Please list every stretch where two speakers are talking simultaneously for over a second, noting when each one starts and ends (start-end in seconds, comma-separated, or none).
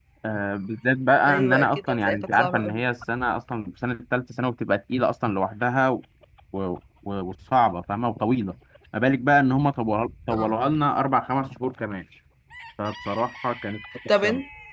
1.3-2.8